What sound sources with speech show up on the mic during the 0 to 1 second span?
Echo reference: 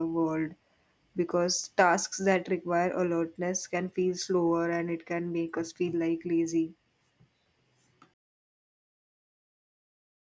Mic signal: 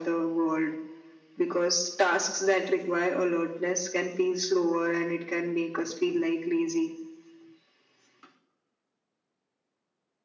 echo only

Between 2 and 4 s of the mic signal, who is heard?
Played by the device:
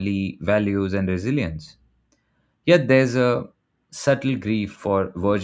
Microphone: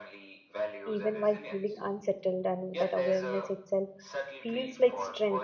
both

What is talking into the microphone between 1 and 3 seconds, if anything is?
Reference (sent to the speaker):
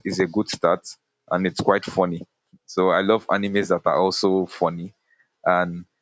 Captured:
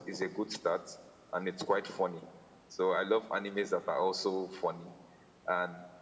echo only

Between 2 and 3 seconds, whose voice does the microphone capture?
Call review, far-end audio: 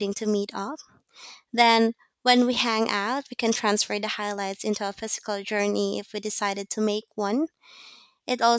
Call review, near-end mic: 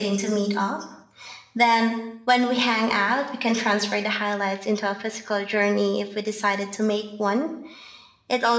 echo only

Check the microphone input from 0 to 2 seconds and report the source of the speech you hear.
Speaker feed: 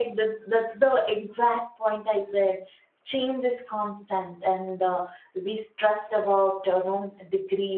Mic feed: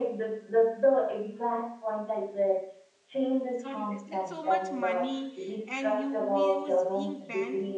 echo only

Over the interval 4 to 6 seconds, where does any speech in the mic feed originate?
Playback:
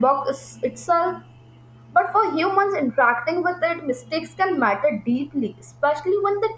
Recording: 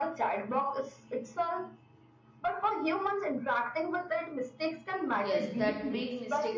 both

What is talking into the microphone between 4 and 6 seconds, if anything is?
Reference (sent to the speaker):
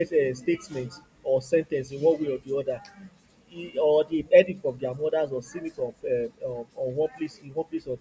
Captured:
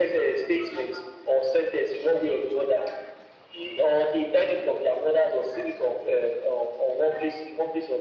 echo only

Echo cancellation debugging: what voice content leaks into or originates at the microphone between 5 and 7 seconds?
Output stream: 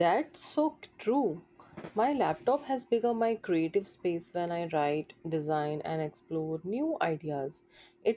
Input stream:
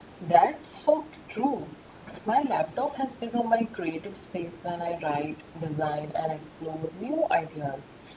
echo only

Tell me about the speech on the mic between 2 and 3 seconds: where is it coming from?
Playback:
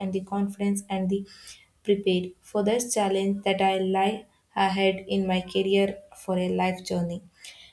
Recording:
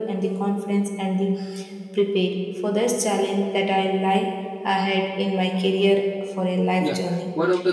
echo only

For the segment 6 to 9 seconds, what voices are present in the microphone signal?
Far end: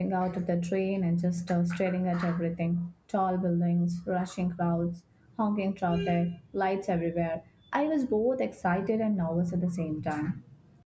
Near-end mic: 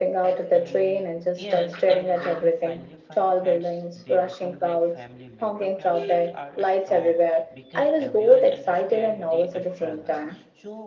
both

